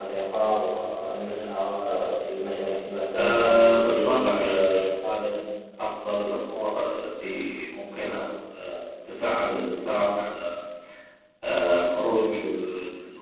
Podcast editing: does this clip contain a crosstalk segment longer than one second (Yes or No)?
Yes